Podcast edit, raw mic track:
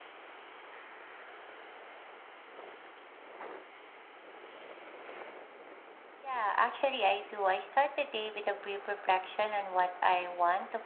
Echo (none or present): none